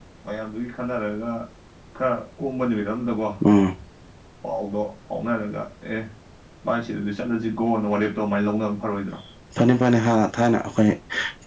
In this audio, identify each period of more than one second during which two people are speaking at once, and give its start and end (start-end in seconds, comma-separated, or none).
none